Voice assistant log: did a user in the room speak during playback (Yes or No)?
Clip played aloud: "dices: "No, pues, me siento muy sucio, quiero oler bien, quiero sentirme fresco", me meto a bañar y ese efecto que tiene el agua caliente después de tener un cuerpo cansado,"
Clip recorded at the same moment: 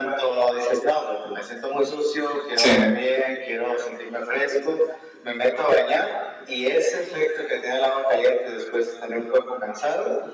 Yes